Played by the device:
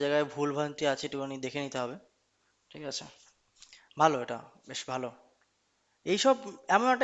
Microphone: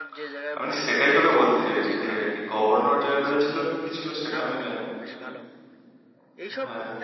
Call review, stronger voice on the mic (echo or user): user